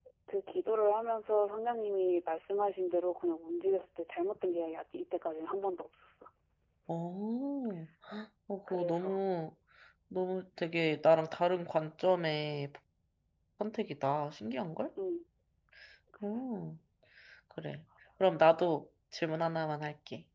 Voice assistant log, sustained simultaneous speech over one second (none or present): none